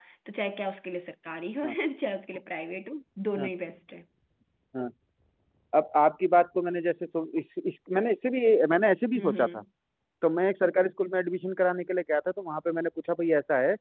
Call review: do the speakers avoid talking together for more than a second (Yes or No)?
Yes